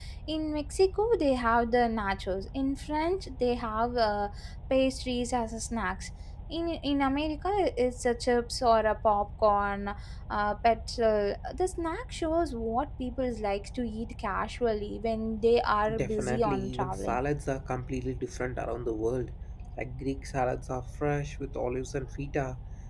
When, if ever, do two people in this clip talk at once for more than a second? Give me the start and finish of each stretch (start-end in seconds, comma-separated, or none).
15.9-17.2